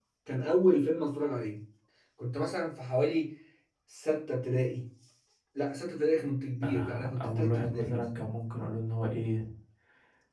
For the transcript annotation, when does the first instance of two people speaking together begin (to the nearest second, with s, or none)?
7 s